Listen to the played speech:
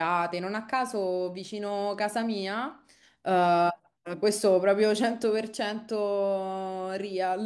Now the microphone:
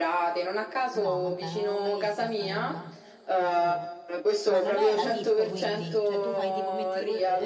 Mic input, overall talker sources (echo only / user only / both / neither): both